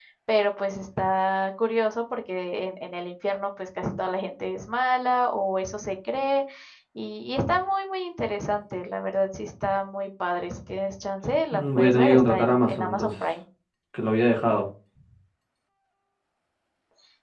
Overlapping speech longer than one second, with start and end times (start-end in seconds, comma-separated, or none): 11.5-13.1